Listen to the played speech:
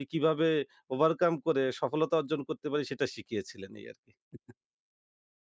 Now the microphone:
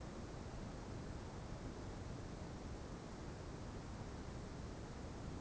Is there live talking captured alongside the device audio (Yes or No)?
No